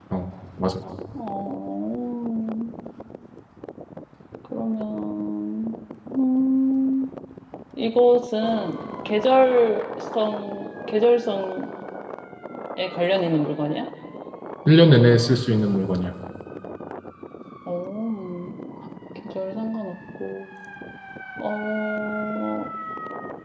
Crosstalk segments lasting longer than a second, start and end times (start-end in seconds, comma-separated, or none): none